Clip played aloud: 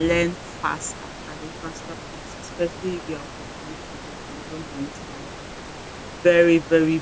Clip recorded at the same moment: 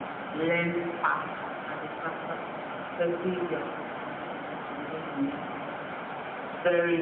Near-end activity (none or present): none